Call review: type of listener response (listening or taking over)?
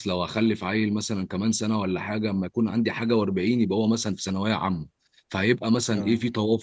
listening